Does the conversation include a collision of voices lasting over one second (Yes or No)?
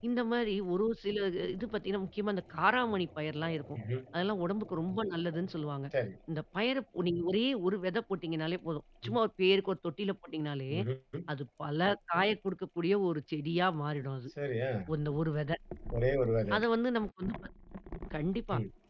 No